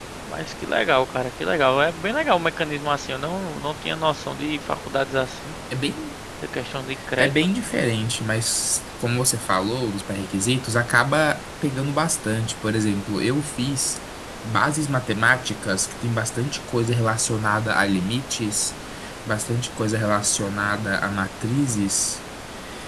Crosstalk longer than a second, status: none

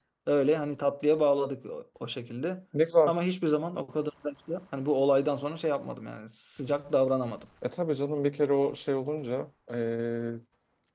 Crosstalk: none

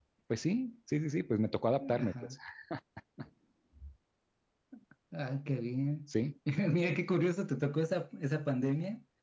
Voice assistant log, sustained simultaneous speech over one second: none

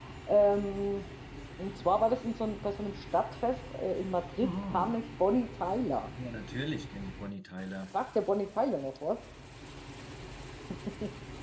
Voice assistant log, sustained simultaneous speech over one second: none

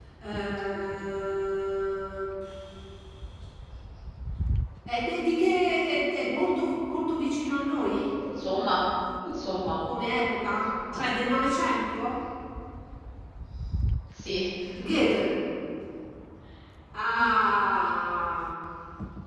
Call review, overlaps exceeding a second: none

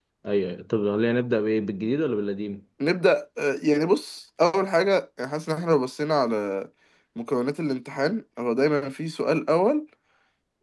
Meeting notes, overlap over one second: none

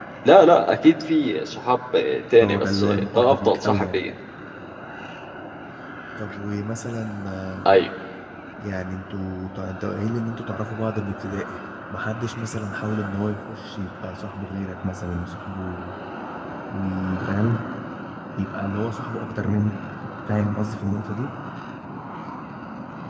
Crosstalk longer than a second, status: present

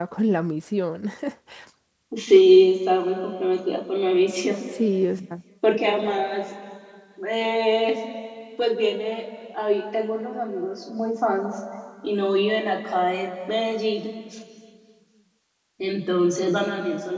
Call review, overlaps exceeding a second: none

